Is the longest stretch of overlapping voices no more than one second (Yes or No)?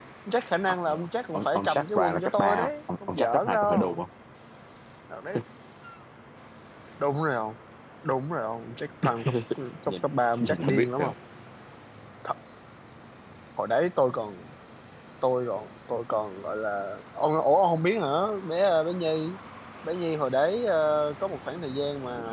No